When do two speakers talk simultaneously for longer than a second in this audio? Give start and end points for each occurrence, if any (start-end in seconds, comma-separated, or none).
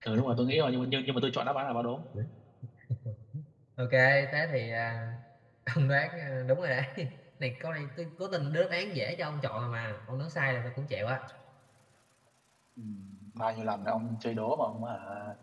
none